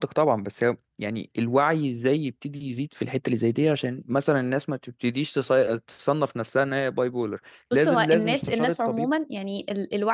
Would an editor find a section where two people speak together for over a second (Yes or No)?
Yes